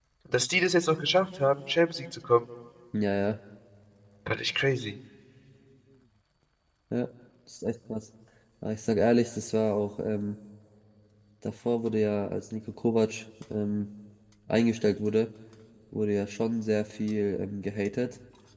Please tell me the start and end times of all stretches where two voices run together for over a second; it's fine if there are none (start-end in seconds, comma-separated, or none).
none